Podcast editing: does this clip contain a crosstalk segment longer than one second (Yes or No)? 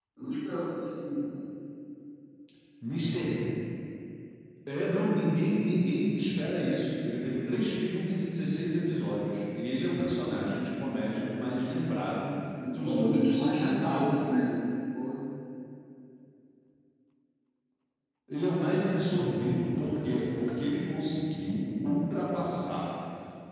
Yes